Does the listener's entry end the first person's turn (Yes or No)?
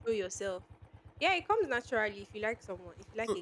Yes